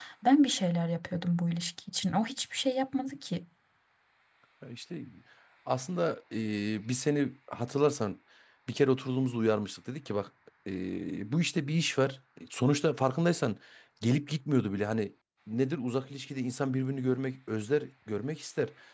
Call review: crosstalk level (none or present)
none